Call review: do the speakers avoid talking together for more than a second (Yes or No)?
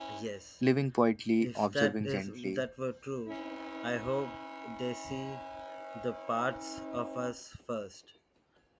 No